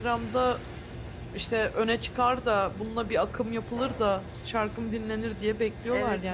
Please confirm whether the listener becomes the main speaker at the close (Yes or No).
Yes